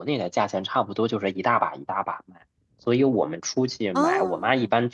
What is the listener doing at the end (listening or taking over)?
listening